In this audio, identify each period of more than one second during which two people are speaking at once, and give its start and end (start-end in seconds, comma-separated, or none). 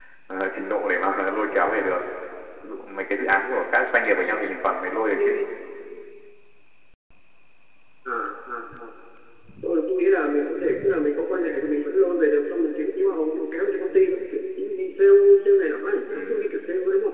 none